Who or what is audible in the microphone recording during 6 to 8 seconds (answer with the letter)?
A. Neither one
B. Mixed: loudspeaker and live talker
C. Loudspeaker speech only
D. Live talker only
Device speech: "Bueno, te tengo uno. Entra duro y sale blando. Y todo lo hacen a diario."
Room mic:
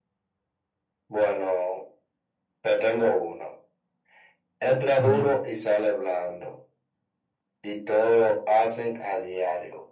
C